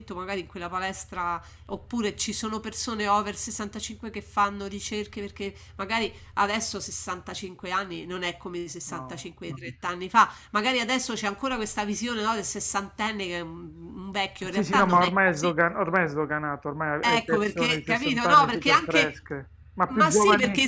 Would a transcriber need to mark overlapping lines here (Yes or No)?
Yes